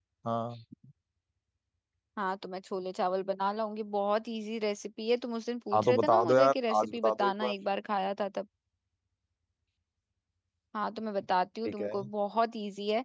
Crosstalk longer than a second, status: present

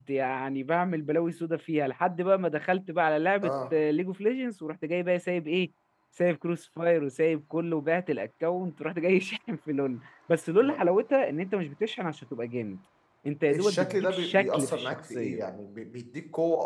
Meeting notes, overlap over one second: present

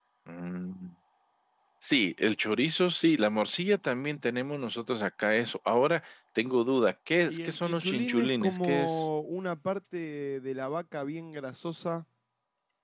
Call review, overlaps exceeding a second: present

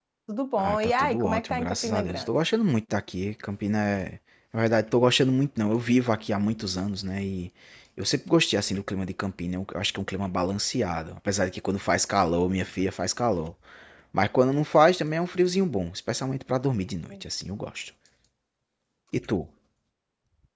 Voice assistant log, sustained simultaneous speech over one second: present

